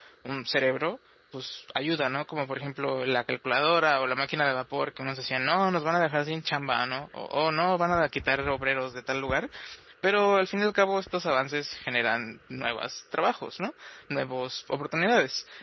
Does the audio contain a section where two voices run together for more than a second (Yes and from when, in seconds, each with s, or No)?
No